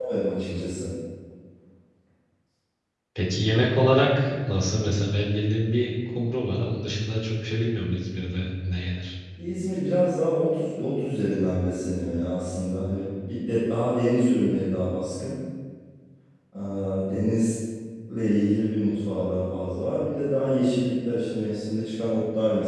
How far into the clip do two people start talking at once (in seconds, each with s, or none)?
none